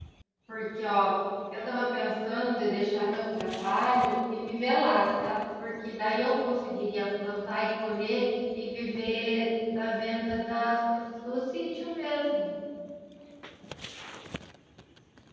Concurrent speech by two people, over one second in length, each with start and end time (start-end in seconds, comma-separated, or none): none